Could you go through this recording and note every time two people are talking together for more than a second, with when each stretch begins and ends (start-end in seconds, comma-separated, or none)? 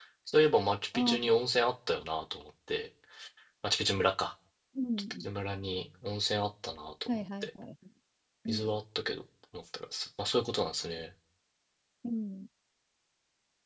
none